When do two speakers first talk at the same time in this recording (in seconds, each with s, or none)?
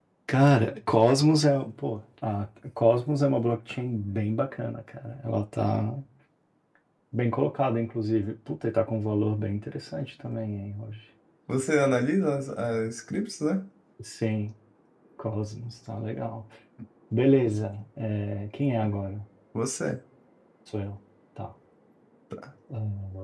none